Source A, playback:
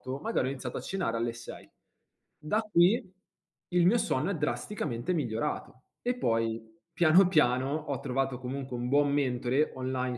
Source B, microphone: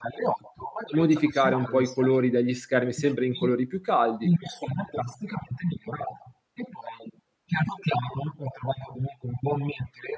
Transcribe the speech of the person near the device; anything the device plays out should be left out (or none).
modificare un po' i colori degli schermi sempre in colori più caldi